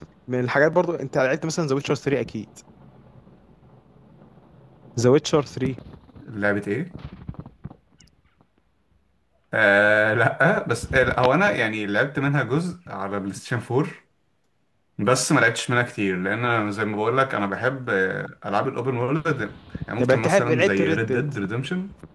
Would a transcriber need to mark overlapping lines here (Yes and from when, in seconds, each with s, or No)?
Yes, from 20.0 s